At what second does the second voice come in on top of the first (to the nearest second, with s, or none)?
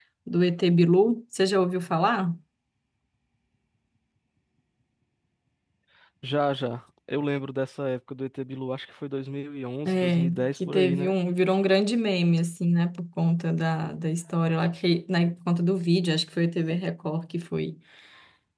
10 s